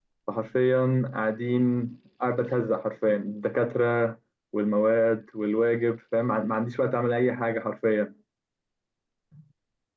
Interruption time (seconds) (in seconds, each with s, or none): none